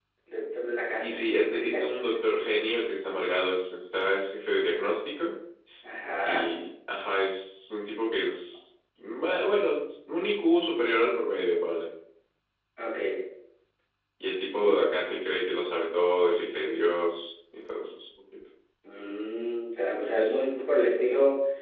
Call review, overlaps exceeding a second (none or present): none